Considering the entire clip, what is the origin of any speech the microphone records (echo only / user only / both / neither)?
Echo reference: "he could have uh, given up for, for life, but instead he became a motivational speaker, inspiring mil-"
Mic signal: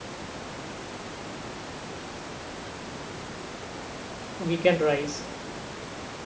user only